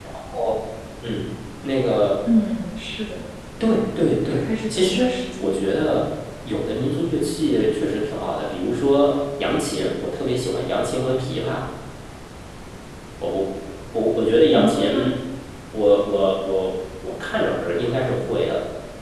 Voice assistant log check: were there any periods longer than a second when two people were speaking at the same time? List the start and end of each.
4.3-5.5

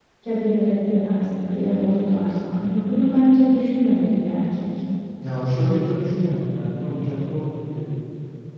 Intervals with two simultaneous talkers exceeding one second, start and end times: none

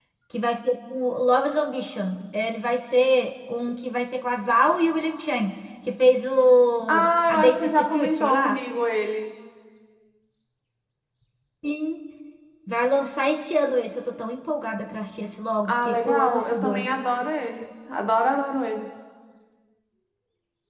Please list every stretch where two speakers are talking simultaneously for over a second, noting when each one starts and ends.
6.9-8.6, 15.7-17.0

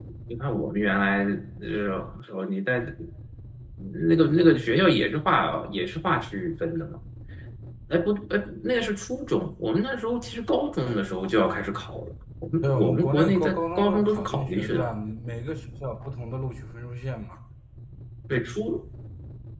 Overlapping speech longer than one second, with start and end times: 12.6-14.9

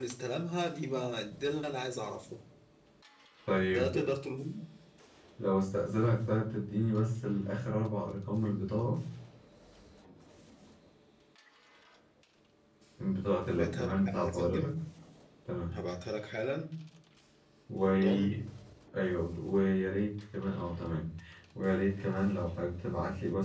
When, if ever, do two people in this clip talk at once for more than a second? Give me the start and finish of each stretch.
13.5-14.7

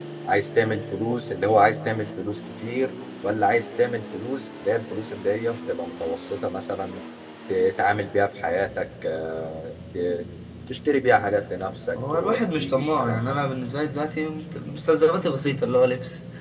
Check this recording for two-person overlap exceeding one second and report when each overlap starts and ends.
12.0-13.4

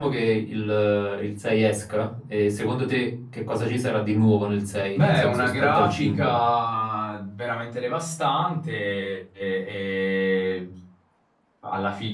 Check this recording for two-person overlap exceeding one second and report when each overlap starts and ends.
5.0-6.3

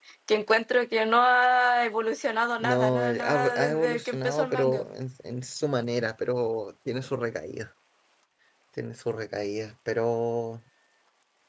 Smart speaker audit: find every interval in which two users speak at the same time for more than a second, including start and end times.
2.6-4.8

